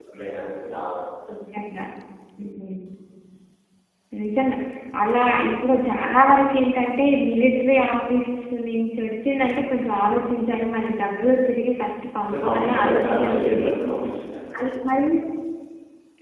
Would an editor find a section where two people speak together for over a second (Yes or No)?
Yes